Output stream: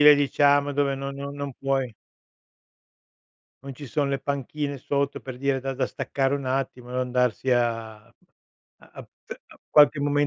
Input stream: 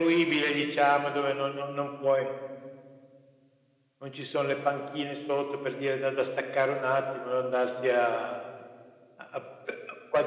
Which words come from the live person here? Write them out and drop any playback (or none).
none